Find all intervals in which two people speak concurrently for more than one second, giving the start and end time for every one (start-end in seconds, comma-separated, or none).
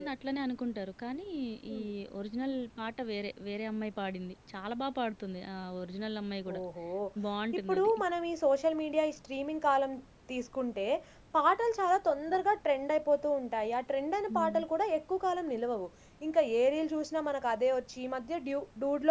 none